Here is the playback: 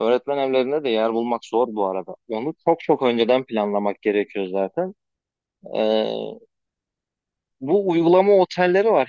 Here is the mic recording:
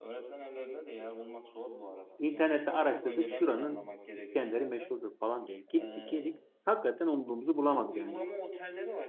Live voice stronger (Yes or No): Yes